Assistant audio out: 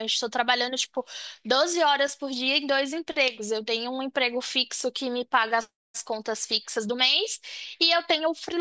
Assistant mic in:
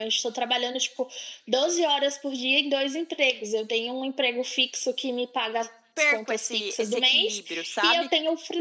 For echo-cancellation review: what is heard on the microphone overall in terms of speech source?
both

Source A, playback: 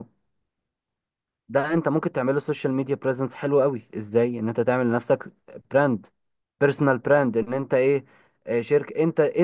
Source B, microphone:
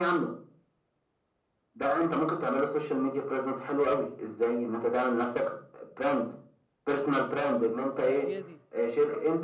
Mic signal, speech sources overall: both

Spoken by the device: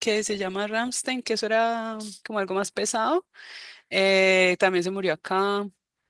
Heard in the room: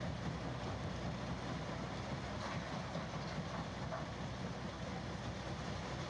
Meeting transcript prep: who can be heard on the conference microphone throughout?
neither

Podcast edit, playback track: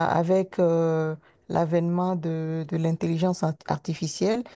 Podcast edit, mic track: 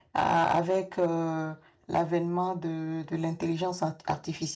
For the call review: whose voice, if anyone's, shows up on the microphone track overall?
echo only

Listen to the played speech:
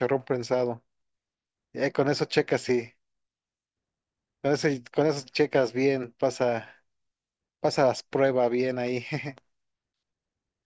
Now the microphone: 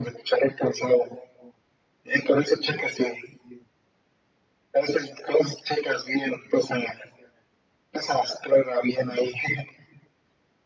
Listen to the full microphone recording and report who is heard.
echo only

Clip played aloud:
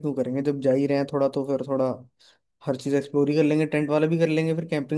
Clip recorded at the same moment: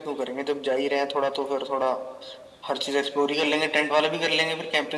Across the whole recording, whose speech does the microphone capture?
echo only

